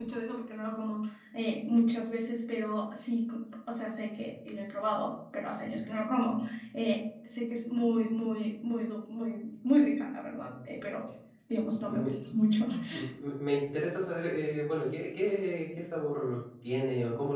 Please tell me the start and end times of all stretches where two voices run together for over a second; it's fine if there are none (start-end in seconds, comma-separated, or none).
none